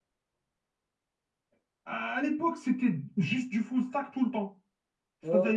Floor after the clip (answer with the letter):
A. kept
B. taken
A